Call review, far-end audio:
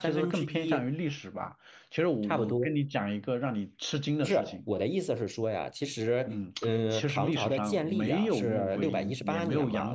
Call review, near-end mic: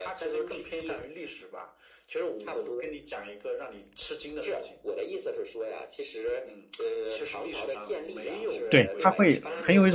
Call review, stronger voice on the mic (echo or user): user